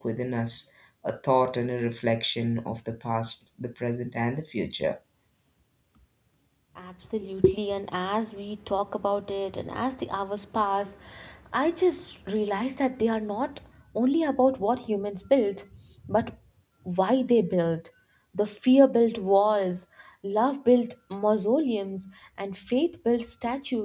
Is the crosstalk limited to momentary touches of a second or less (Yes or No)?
Yes